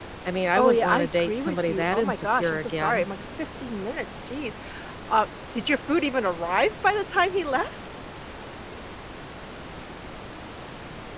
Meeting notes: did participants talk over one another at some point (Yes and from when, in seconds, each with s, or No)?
Yes, from 0.6 s